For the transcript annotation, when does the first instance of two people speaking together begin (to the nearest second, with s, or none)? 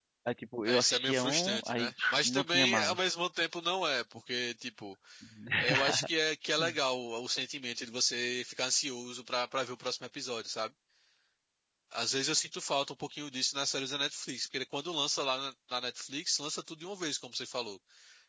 1 s